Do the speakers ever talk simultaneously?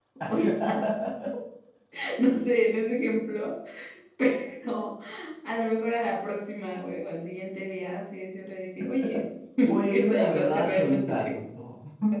Yes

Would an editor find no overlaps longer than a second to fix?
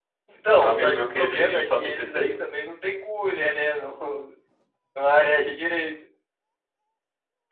No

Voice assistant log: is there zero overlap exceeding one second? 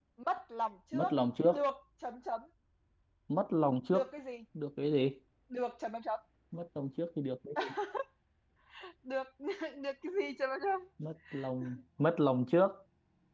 Yes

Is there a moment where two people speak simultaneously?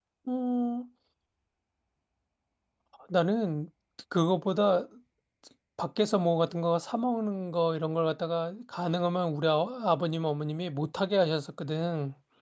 No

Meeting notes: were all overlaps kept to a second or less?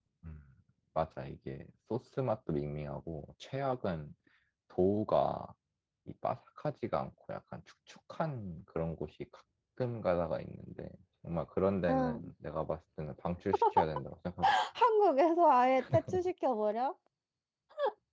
Yes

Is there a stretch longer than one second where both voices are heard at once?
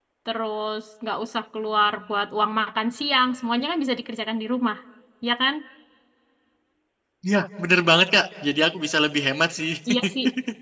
No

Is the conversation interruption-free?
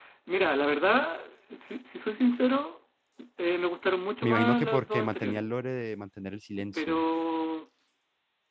No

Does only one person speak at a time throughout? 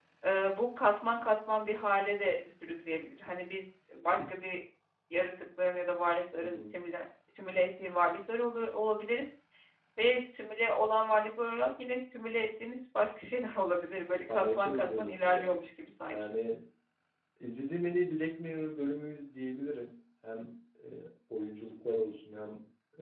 No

